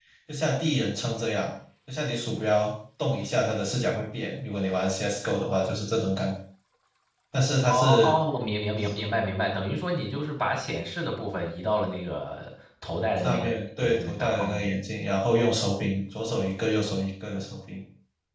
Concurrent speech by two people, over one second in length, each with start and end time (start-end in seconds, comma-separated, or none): 13.2-14.5